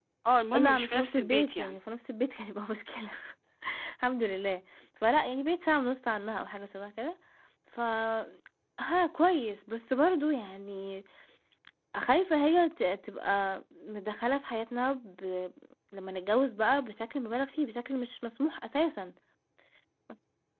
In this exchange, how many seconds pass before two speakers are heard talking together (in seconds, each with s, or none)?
0.5 s